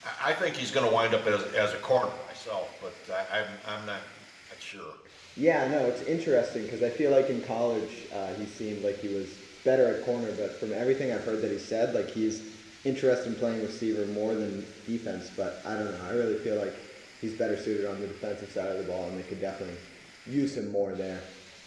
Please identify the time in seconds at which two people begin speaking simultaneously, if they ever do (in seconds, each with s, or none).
none